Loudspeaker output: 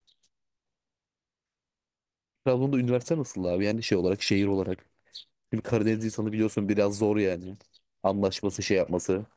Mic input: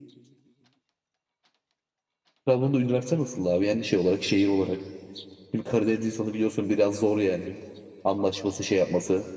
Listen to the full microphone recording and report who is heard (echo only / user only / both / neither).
echo only